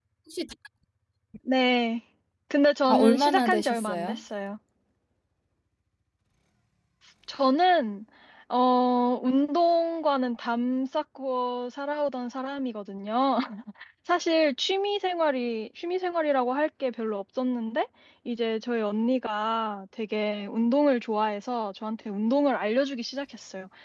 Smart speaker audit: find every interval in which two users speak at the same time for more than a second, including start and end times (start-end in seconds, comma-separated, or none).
2.9-4.2